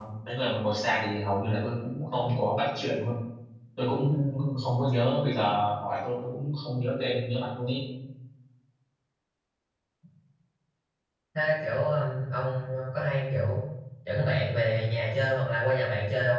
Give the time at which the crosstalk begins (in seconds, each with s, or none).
none